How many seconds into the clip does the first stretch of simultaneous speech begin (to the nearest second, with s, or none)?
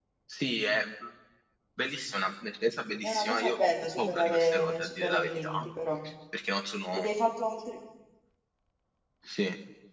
3 s